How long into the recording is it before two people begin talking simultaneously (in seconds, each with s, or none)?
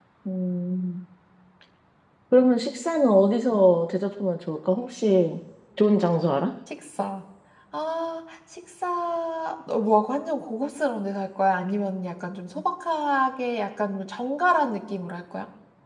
none